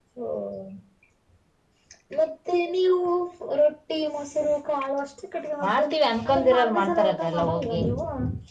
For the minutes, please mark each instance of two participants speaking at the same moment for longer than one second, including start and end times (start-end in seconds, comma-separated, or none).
6.3-7.8